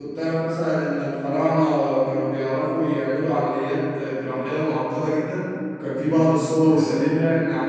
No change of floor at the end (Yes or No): Yes